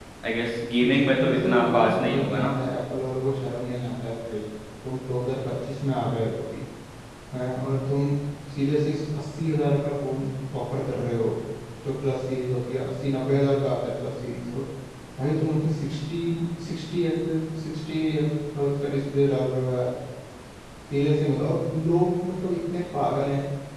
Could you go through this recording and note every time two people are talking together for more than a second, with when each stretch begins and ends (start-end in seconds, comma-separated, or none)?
0.8-2.6